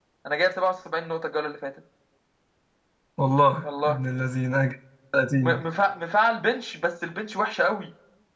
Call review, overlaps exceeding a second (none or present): none